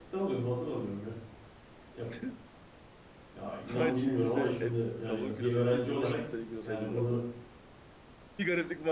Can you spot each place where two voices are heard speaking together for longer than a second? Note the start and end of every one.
3.7-6.2

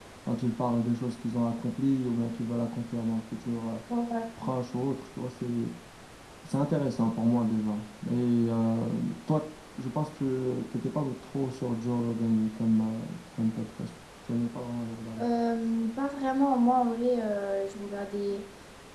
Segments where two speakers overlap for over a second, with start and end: none

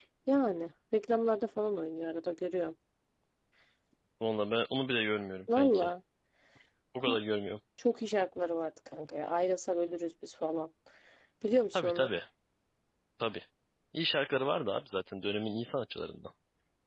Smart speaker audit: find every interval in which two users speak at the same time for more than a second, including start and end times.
none

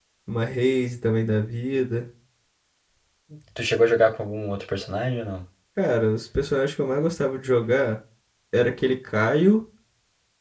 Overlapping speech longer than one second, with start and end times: none

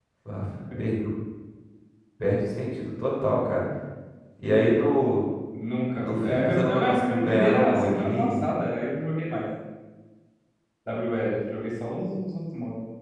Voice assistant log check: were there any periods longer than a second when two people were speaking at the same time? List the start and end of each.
6.0-8.4

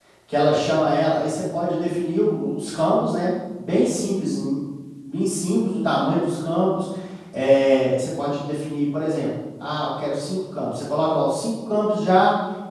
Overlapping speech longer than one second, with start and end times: none

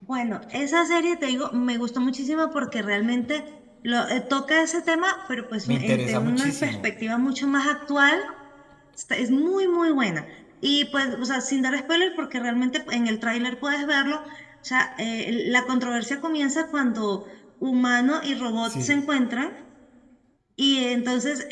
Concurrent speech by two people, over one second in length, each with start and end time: 5.6-6.9

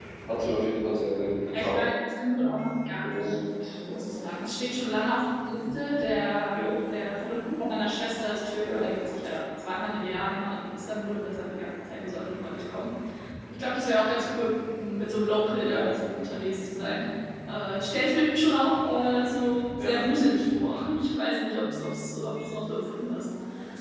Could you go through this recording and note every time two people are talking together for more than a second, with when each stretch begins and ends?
none

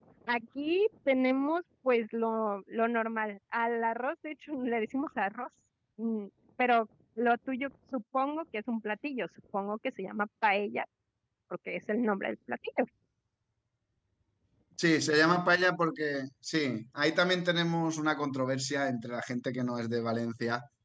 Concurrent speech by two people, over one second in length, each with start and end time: none

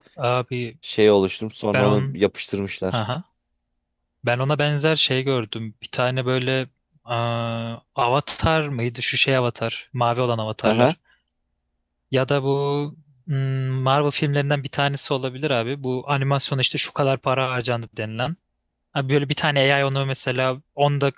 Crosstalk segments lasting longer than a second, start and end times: none

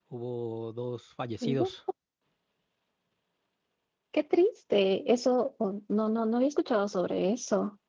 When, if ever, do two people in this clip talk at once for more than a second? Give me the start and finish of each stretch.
none

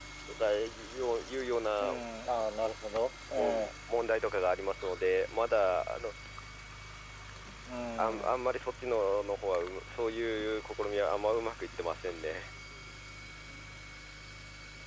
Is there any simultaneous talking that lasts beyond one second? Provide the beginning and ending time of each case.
none

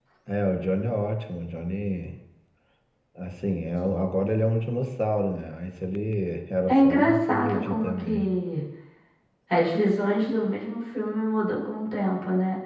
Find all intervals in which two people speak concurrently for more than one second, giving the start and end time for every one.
6.7-8.2

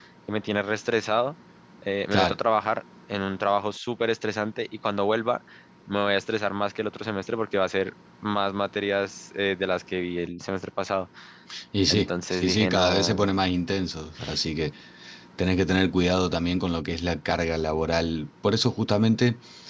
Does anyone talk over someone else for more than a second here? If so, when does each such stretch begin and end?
11.9-13.3

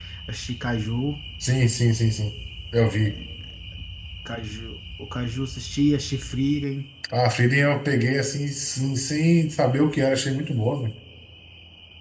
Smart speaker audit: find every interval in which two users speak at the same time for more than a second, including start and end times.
none

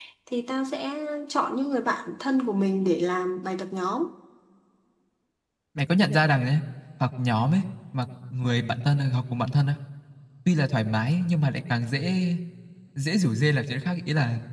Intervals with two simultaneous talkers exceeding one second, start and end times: none

